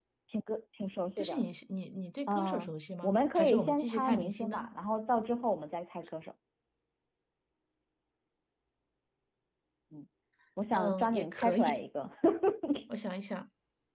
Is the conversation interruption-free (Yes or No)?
No